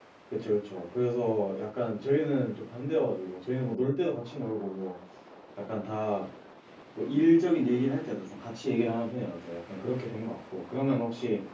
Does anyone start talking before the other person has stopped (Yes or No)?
No